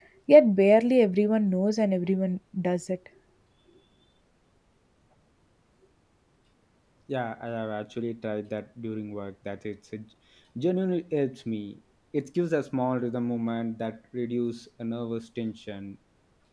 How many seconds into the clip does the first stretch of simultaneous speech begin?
none

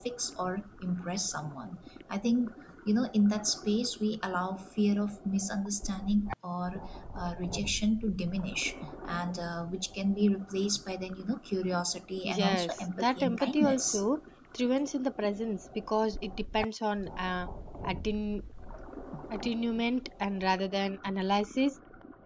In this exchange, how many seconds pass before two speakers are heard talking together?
12 s

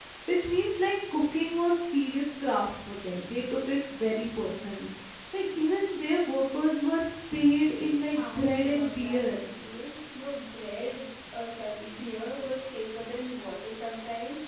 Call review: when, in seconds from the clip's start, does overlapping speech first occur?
8 s

